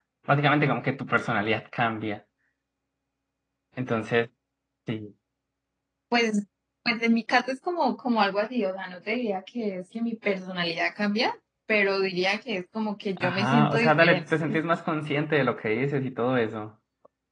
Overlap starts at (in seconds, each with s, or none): 13.2 s